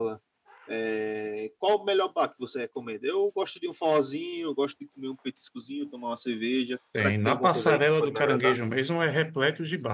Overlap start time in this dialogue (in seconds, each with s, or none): 6.9 s